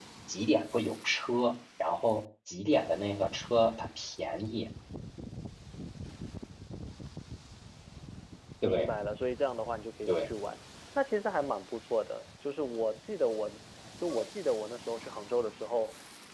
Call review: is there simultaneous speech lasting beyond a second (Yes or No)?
No